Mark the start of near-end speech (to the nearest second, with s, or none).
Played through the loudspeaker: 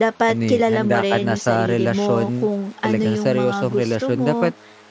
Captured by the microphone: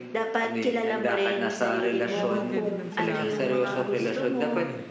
2 s